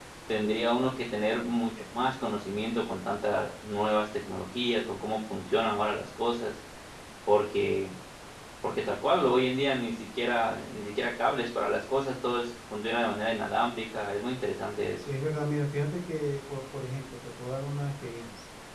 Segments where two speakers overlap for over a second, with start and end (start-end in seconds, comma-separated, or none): none